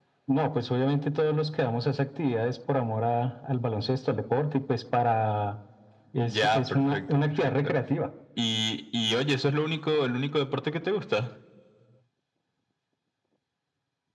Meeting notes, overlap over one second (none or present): present